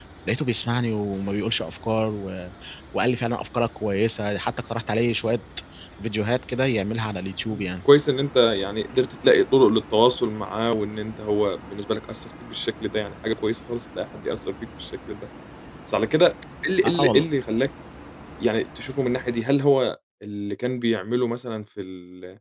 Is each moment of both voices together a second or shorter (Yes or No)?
Yes